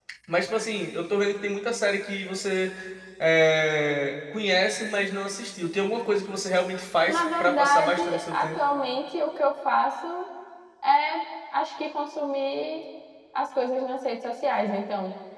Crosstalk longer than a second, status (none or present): present